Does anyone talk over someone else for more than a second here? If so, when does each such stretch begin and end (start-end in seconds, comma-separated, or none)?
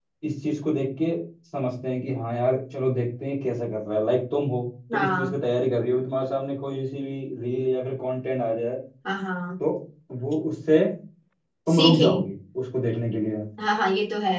none